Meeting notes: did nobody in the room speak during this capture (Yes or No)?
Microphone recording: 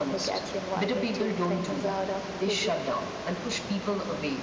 Yes